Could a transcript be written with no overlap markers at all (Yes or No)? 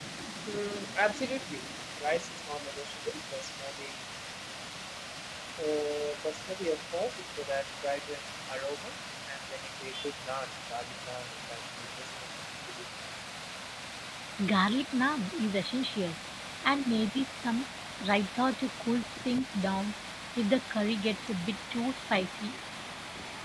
Yes